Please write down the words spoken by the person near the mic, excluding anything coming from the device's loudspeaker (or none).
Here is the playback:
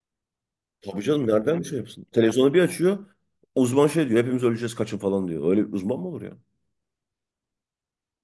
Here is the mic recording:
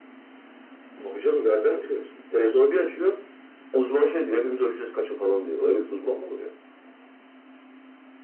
none